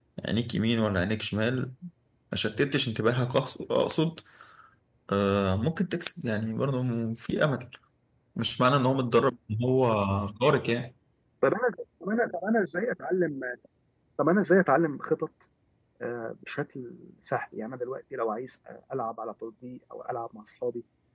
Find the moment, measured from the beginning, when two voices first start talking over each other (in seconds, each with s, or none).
none